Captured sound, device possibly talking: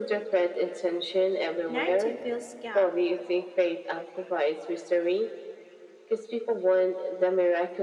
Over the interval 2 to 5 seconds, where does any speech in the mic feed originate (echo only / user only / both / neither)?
both